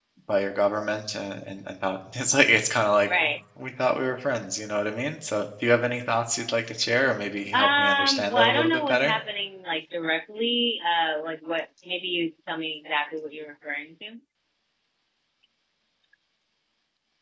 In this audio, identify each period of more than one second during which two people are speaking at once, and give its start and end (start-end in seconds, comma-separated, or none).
7.5-9.1